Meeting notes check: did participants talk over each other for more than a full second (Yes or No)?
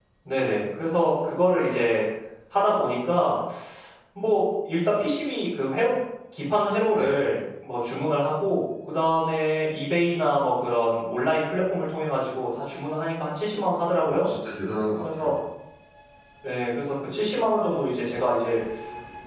No